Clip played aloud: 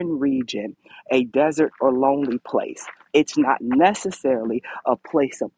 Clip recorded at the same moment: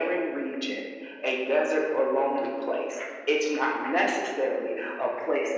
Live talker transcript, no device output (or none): none